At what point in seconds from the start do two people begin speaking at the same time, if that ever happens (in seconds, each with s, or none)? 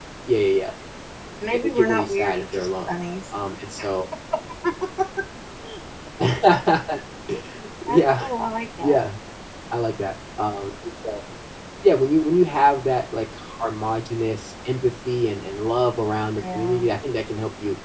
1.5 s